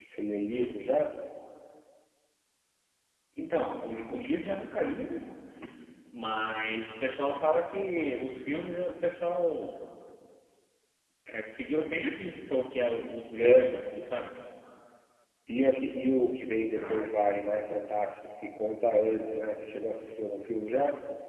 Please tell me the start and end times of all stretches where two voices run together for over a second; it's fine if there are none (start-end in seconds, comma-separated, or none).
none